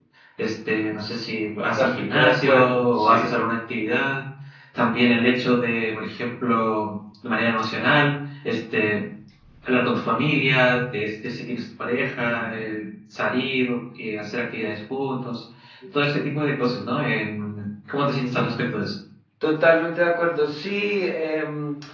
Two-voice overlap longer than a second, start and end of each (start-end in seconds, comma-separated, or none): 1.8-3.2